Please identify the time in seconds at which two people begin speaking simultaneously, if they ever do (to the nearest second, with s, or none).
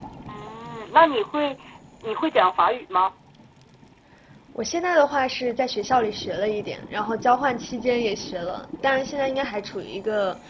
none